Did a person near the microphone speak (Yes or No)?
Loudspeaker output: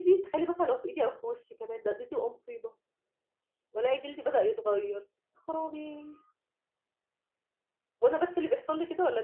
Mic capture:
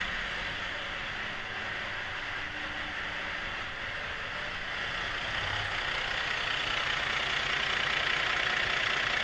No